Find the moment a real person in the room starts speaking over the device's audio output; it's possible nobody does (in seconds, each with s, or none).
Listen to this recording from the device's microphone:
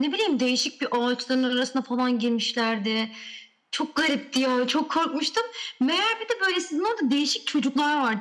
none